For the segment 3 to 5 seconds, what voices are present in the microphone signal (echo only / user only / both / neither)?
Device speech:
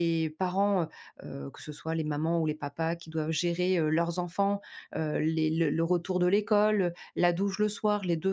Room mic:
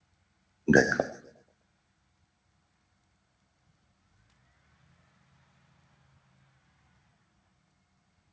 neither